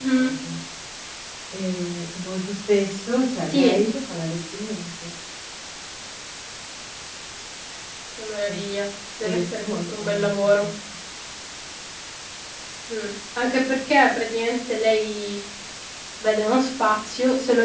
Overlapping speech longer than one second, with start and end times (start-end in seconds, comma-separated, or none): 9.2-10.7